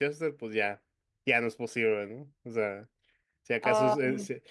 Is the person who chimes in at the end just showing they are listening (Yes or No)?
Yes